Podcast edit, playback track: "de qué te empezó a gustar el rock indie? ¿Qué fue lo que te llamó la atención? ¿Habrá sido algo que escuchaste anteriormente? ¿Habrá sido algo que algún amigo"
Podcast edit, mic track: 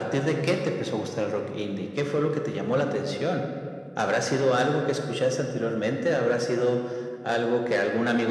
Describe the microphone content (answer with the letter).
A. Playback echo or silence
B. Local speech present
A